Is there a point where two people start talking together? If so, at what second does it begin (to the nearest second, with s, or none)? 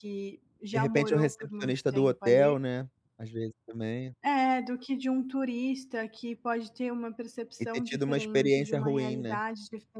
1 s